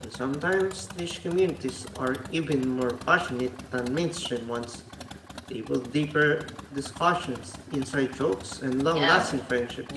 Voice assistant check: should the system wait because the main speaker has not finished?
No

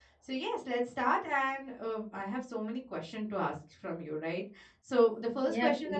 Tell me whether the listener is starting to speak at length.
No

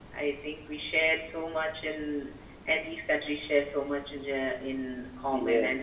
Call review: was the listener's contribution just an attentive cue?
No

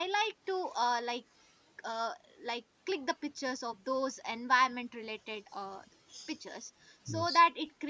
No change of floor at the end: Yes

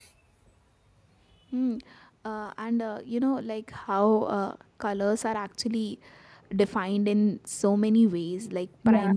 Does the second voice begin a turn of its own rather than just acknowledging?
No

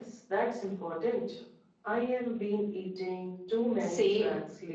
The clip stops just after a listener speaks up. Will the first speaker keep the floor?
No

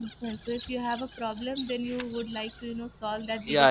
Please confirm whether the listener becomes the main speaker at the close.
Yes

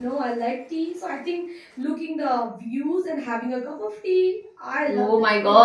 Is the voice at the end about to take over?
Yes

